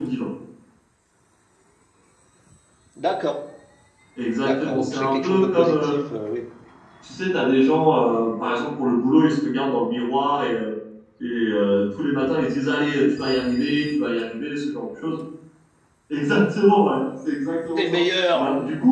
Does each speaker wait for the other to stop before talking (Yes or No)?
No